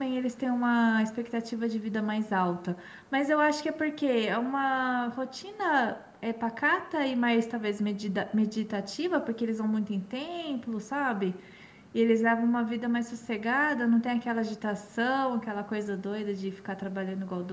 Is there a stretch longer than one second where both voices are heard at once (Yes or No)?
No